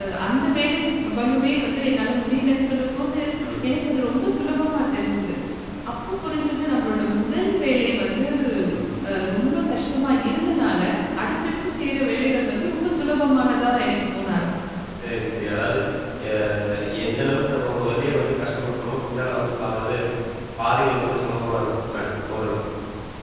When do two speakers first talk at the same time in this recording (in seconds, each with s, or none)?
none